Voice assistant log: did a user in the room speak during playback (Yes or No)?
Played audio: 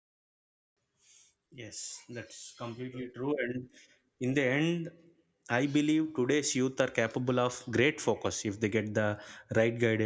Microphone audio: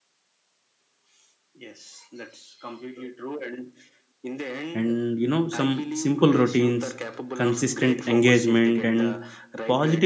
Yes